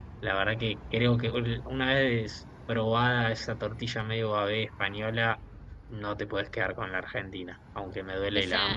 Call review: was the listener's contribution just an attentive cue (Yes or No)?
No